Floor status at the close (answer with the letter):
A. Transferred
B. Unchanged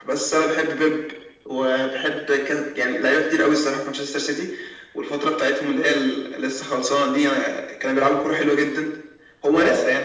B